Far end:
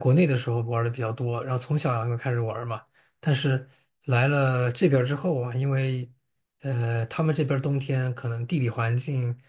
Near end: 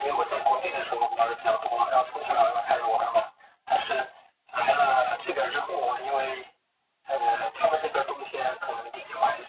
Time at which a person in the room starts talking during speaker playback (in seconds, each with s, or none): none